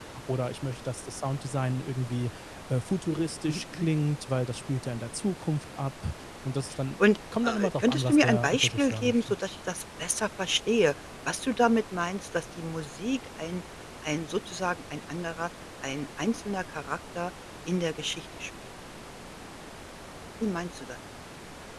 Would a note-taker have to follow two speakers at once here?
Yes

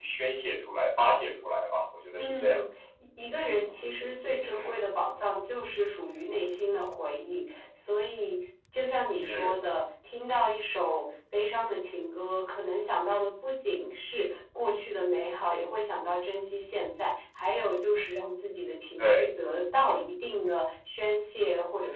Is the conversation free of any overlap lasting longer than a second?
Yes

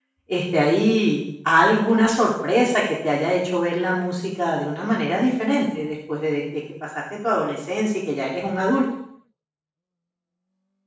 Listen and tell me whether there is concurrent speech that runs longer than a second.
No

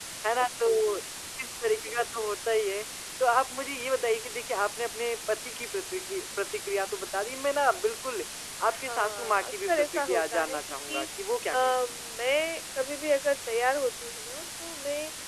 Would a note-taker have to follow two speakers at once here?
Yes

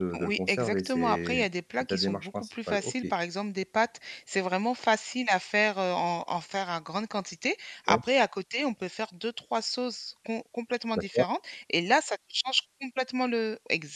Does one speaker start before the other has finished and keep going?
Yes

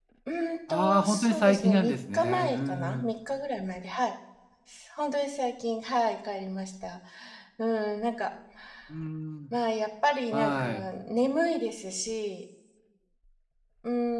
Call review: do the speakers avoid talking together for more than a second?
No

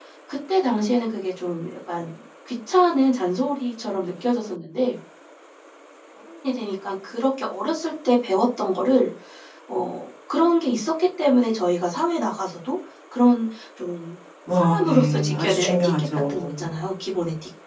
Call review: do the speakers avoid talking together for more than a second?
No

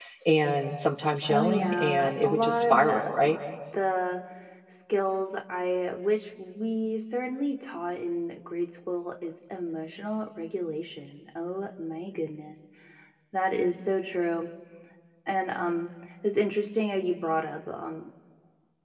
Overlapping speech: Yes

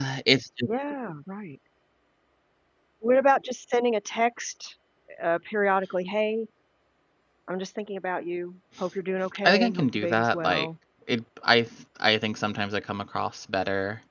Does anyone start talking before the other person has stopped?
Yes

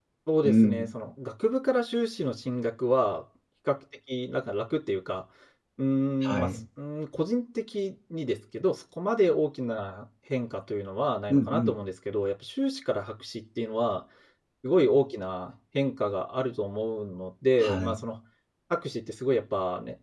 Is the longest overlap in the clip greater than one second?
No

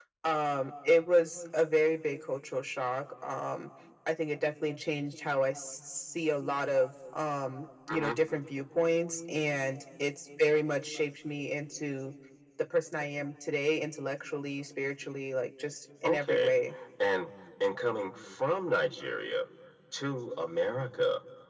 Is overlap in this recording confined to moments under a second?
Yes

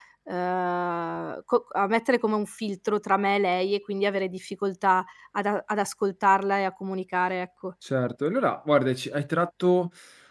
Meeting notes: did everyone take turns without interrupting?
Yes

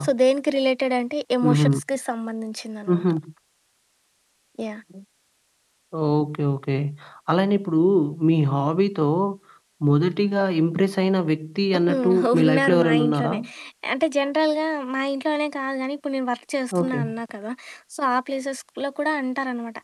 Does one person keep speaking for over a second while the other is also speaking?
Yes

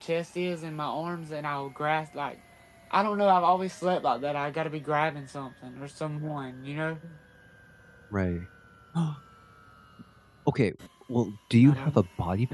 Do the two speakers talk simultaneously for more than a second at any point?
No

